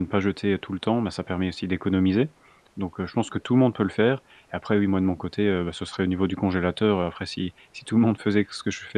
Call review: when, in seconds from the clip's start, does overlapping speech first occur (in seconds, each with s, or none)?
none